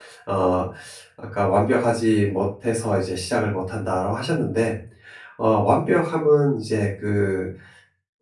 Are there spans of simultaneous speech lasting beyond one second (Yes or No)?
No